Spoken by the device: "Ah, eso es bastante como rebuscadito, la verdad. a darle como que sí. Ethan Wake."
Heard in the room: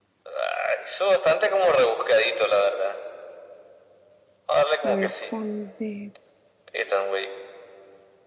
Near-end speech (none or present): present